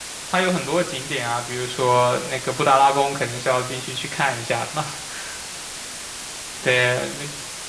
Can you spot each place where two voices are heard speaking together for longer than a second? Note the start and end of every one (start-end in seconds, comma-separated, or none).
none